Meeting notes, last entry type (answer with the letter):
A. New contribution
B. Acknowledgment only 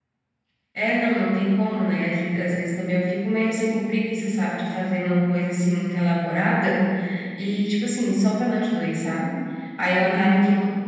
B